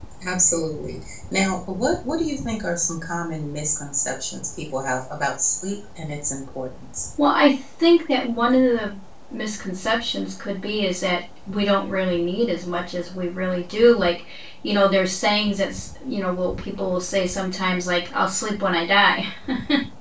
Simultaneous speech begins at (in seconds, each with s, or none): none